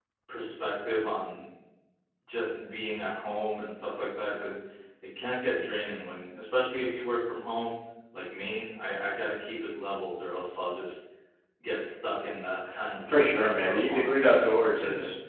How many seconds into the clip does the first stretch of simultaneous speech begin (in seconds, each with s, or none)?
13.1 s